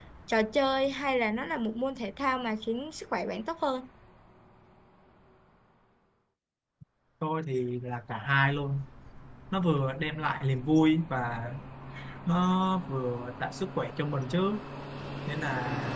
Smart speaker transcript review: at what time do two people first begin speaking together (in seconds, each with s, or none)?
none